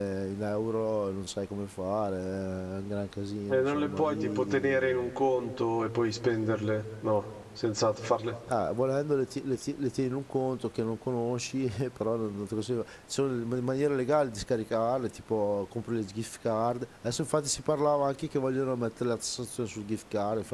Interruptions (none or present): present